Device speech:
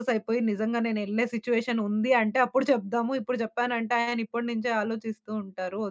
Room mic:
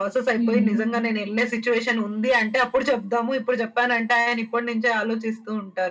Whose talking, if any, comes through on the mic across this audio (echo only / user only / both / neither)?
both